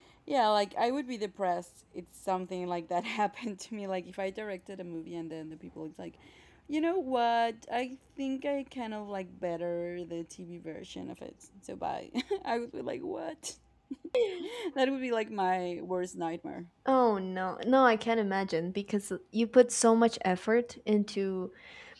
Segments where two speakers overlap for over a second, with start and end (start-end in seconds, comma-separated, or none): none